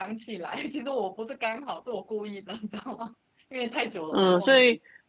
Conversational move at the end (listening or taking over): taking over